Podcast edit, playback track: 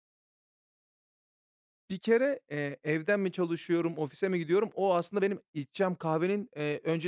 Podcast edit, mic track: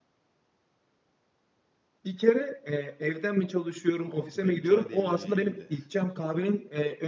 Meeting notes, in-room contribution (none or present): present